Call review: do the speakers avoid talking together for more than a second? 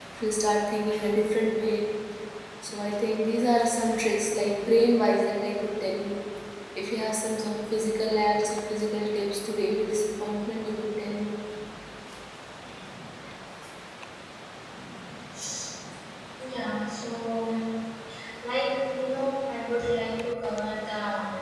Yes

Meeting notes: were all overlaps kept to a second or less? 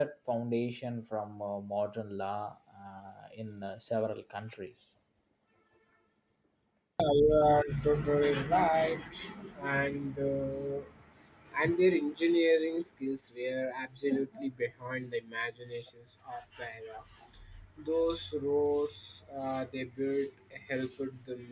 Yes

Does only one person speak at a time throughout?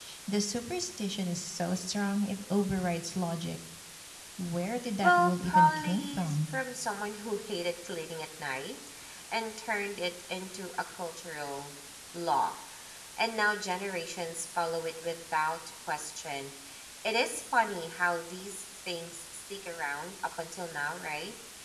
No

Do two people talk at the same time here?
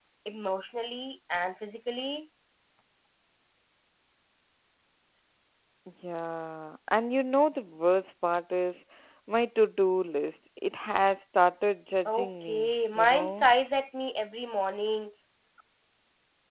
Yes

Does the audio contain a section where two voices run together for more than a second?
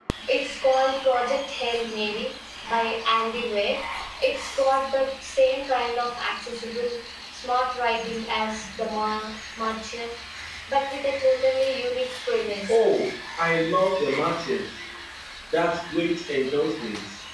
No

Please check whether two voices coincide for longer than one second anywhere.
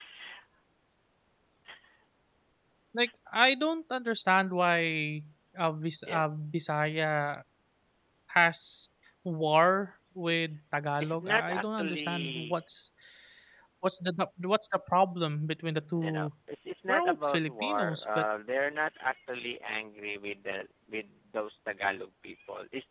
Yes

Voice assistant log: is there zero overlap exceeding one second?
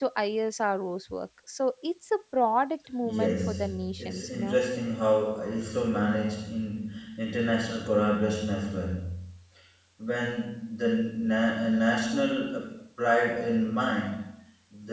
No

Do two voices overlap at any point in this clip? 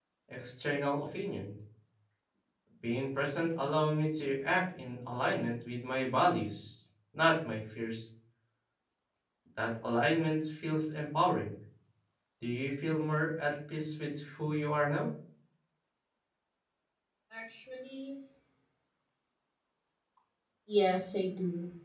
No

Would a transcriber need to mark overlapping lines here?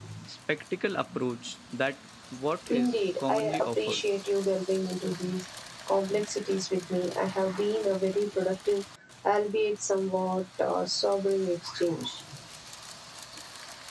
Yes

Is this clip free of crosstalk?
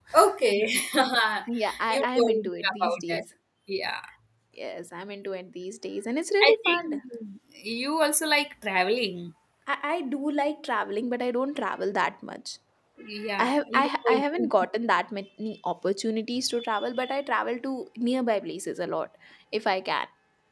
No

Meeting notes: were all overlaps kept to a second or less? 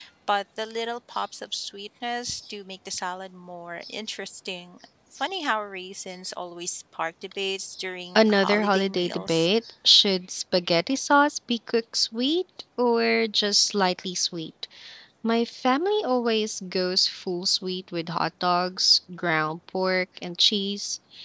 No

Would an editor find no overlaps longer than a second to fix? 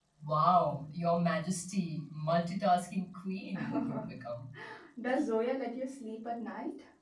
Yes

